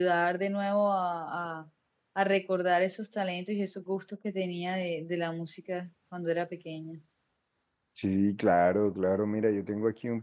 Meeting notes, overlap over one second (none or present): none